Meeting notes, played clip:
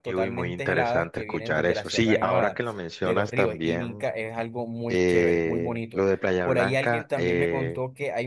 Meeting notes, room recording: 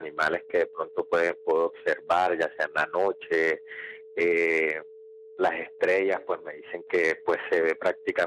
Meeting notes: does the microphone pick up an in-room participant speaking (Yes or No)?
Yes